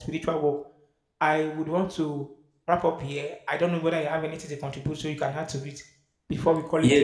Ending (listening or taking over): taking over